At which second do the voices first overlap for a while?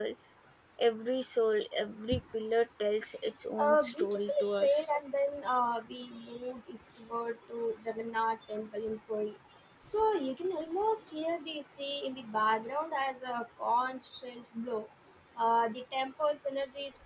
3.5 s

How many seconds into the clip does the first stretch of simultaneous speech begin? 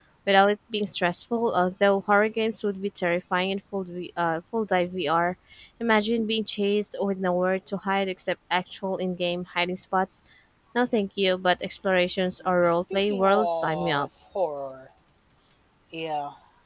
12.7 s

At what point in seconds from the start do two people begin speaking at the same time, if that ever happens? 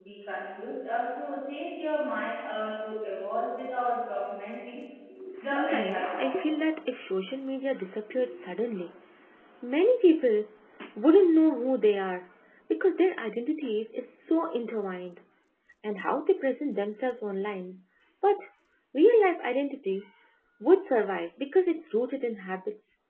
5.4 s

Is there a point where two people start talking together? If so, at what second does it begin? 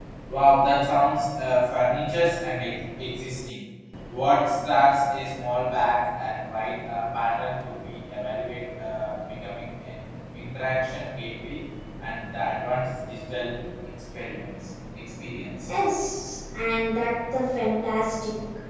none

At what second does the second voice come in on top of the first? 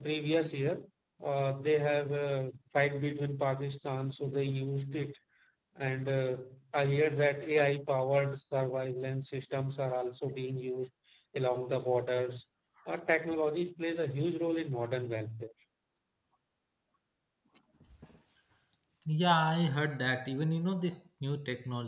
none

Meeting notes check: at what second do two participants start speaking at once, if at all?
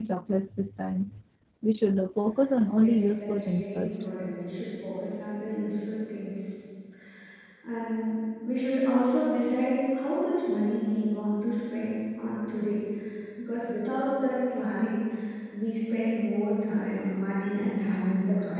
2.8 s

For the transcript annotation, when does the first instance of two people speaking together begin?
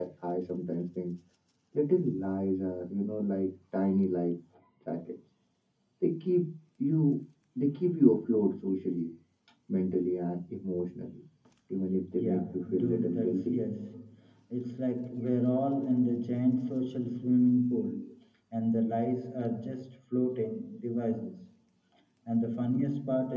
12.2 s

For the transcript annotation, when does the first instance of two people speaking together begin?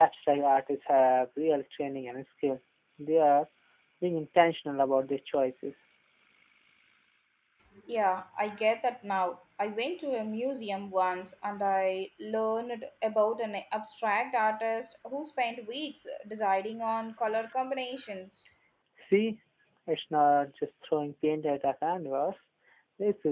none

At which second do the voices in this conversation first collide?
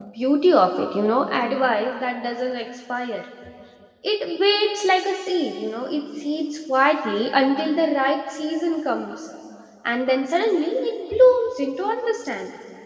none

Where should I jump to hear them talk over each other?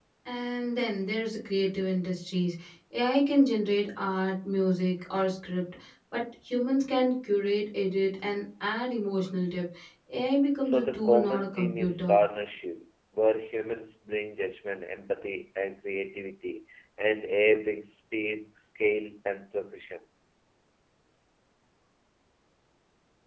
10.6 s

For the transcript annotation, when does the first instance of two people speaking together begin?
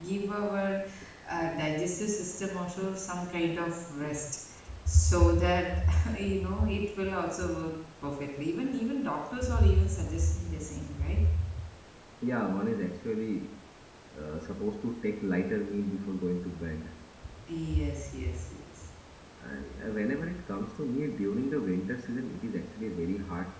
none

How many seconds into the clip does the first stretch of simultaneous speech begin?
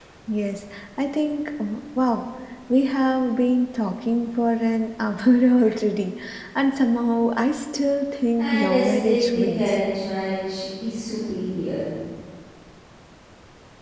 8.4 s

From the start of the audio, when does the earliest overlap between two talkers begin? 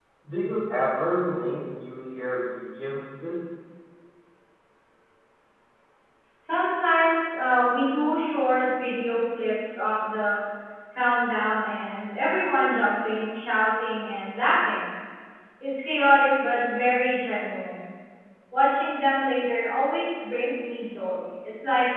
none

